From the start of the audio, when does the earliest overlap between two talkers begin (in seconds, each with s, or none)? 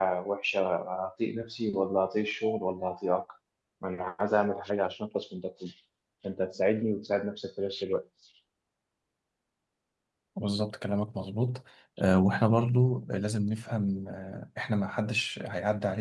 none